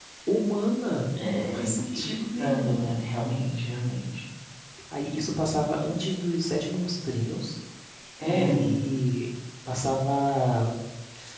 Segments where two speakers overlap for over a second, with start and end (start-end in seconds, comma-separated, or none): 1.2-2.9